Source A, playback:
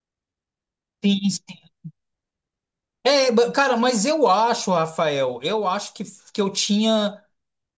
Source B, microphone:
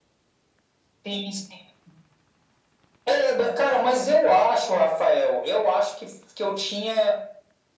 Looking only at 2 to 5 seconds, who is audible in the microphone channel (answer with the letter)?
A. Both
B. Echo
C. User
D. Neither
B